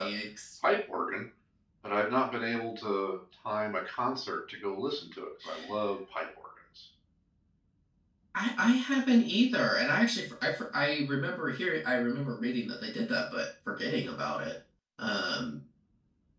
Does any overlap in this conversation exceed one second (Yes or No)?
No